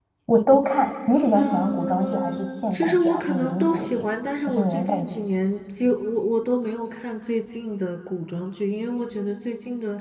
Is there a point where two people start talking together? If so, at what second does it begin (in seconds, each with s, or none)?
1.3 s